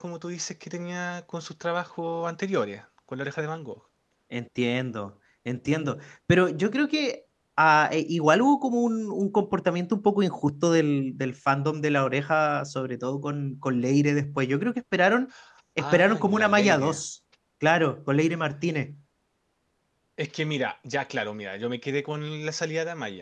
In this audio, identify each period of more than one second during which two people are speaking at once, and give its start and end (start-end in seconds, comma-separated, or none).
15.8-17.0